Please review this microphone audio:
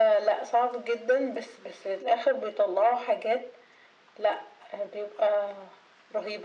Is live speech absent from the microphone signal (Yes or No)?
Yes